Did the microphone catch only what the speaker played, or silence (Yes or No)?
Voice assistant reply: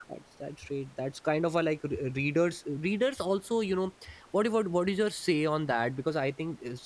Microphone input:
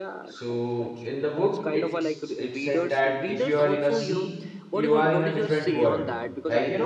No